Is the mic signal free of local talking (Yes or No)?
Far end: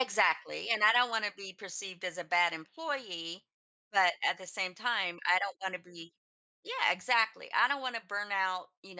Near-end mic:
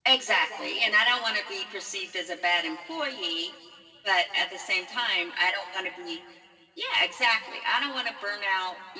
Yes